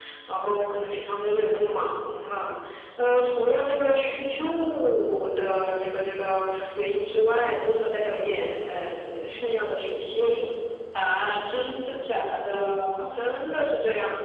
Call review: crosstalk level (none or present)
none